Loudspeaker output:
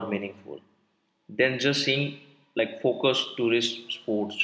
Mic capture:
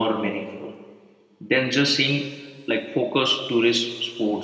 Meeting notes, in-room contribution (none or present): none